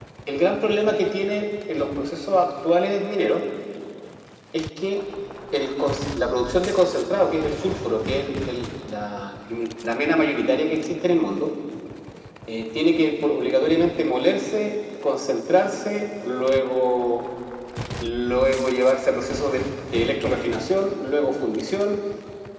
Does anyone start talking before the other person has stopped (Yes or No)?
No